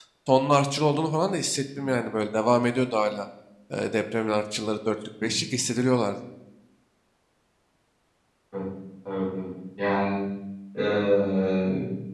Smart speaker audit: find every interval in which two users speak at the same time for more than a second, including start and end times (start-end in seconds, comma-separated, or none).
none